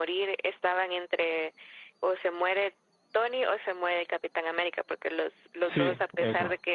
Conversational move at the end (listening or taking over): listening